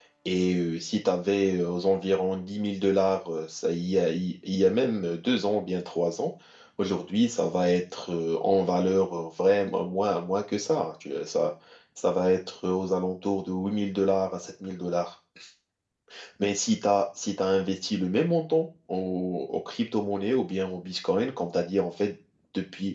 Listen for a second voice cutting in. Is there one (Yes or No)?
No